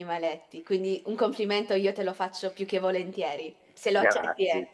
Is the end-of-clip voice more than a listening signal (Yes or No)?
Yes